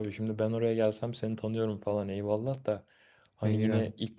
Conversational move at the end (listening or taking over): listening